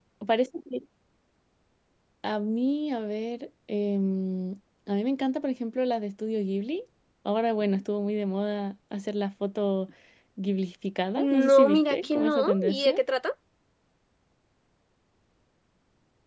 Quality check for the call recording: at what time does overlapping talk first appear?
11.2 s

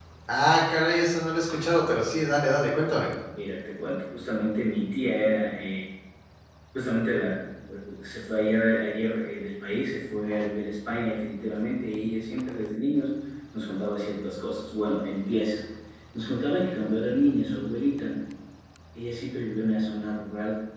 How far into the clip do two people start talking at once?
none

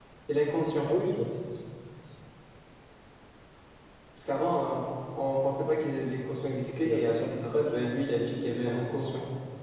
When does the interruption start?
6.6 s

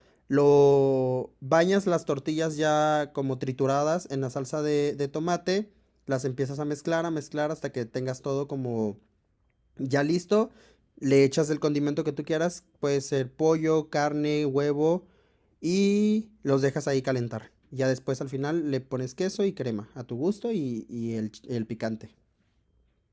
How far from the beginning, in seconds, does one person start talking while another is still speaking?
none

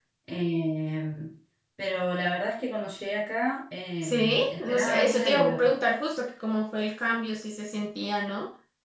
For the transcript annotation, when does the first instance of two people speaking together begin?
4.0 s

